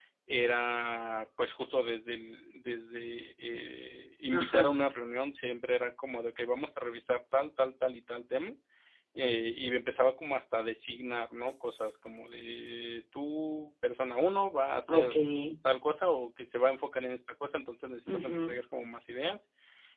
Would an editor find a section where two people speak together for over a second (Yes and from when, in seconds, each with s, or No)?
No